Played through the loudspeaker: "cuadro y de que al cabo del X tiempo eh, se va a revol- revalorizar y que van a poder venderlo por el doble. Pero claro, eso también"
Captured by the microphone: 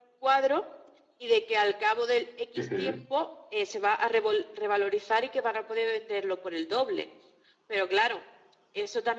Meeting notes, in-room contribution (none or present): present